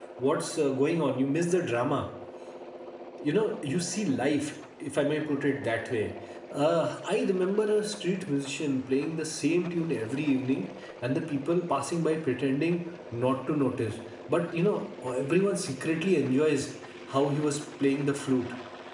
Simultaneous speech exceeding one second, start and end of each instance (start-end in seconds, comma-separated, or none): none